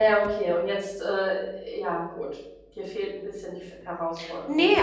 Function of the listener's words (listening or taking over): taking over